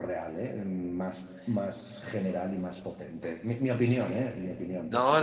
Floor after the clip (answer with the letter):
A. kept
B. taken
B